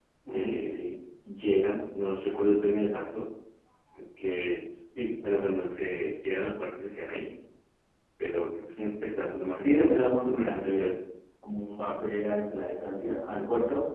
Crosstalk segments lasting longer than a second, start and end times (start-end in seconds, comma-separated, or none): 9.6-10.9